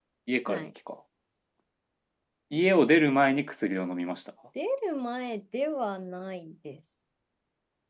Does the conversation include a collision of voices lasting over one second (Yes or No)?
No